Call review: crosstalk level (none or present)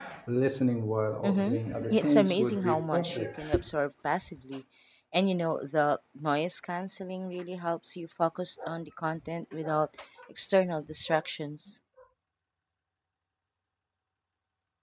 present